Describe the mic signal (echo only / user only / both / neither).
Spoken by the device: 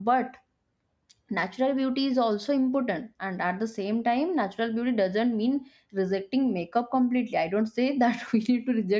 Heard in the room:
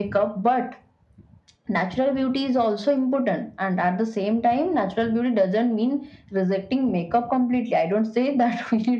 echo only